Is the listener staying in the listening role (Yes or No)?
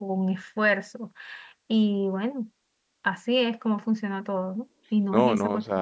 No